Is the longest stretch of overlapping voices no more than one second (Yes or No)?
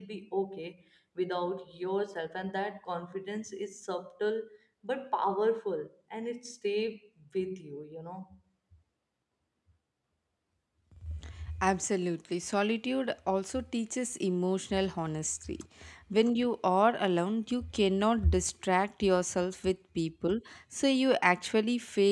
Yes